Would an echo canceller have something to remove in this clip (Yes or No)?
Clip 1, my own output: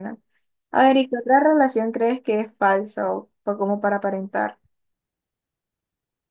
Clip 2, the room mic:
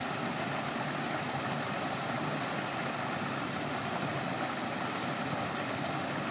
No